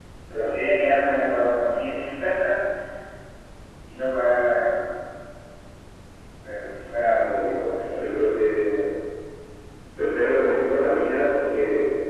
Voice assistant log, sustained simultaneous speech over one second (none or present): present